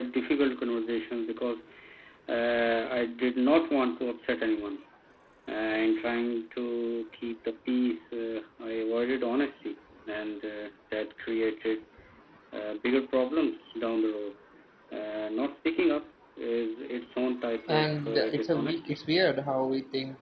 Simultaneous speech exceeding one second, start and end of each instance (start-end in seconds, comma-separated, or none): 17.7-18.9